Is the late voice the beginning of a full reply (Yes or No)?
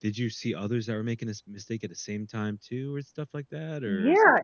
Yes